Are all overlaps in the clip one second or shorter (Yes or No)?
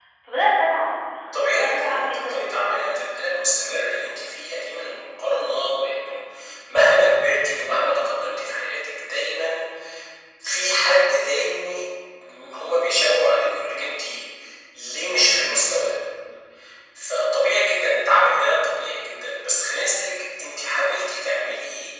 No